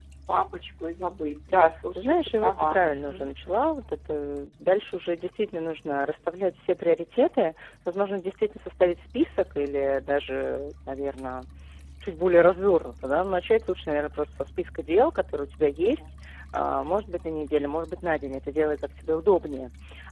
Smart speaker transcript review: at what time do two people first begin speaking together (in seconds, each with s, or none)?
1.9 s